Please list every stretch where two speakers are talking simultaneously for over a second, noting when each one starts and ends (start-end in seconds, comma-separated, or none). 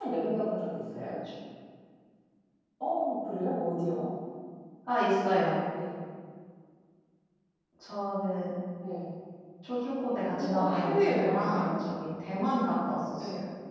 10.4-11.7